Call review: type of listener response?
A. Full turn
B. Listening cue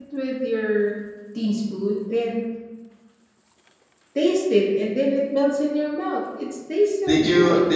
A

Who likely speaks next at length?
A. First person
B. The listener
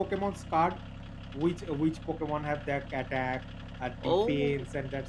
A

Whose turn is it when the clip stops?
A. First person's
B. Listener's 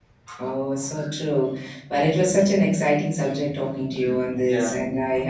A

